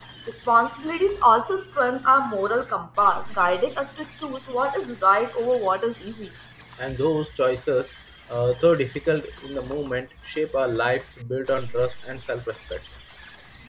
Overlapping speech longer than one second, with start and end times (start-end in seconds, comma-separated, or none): none